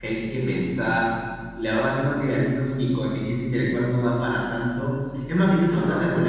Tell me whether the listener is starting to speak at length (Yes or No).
No